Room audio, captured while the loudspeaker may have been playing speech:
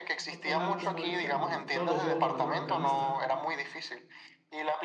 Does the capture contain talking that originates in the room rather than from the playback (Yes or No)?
Yes